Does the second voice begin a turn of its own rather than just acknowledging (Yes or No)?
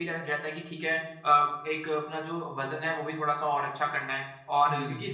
No